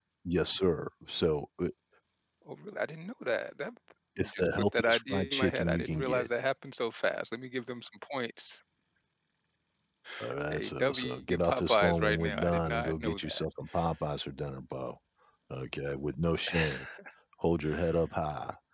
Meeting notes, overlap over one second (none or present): present